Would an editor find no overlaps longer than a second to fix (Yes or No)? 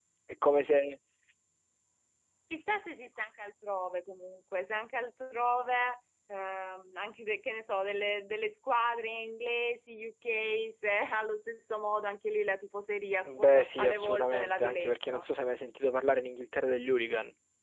No